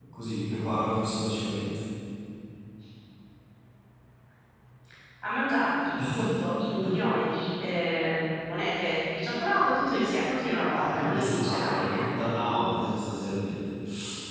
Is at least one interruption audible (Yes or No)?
Yes